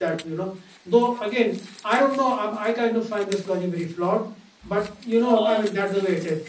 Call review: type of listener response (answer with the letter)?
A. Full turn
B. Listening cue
B